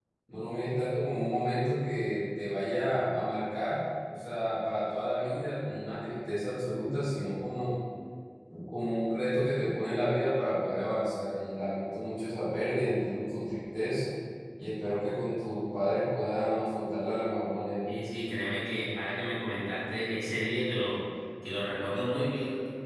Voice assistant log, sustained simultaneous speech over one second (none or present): none